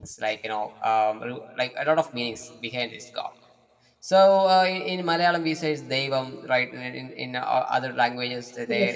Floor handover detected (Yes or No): No